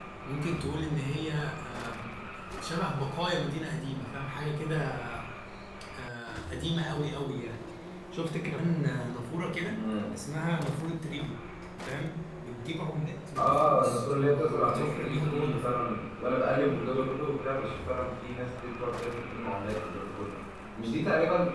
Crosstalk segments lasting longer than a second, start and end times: 13.4-15.9

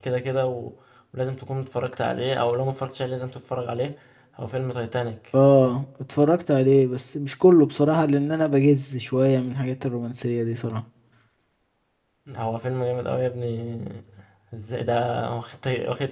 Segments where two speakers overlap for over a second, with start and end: none

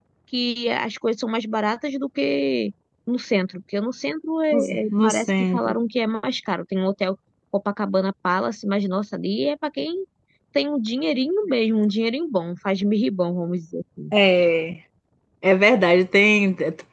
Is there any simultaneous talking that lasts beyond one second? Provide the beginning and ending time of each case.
4.5-5.8

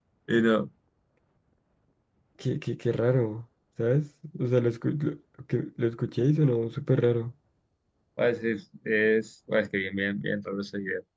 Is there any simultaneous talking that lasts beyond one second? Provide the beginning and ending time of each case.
none

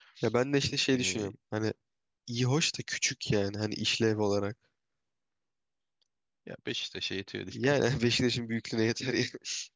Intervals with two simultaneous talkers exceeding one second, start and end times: none

